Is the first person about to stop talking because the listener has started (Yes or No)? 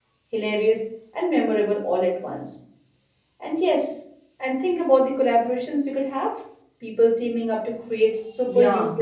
Yes